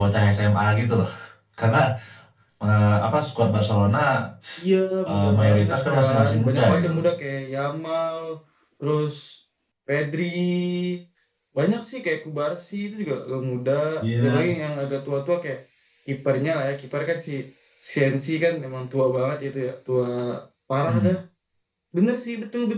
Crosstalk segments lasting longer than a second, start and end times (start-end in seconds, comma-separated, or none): 5.1-7.0